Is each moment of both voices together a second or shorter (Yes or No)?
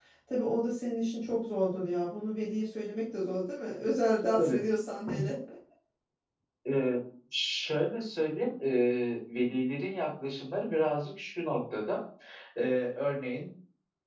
Yes